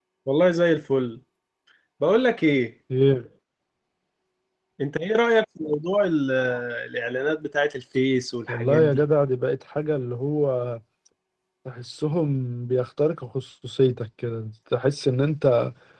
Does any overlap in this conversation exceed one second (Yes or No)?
No